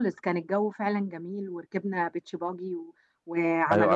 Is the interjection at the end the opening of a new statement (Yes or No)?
Yes